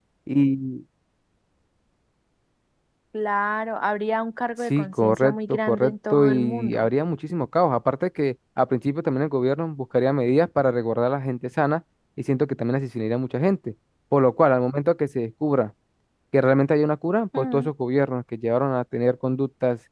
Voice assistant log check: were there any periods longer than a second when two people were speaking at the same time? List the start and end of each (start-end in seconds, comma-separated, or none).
4.8-6.9